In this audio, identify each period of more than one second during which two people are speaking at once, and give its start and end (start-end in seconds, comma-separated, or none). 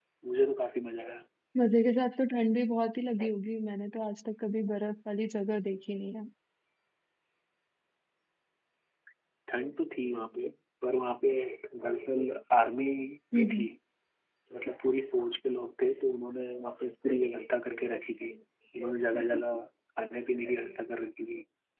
none